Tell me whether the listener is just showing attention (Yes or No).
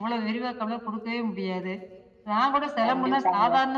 Yes